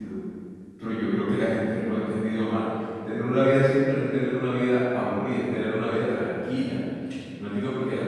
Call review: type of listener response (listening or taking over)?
listening